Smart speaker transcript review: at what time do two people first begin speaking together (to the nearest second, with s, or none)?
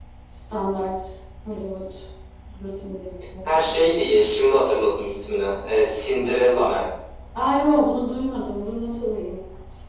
none